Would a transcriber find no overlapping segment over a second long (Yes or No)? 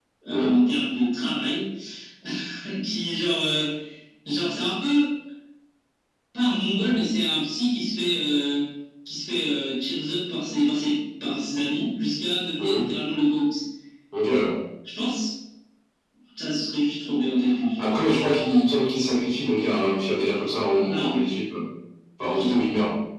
Yes